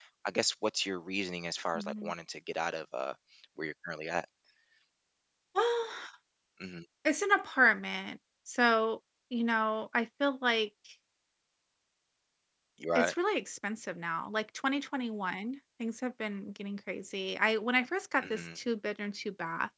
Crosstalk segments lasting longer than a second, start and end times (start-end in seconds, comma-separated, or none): none